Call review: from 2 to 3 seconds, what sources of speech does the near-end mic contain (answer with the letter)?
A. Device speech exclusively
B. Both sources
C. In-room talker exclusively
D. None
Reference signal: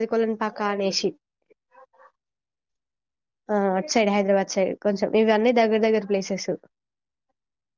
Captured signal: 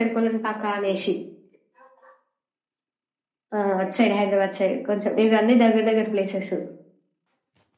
D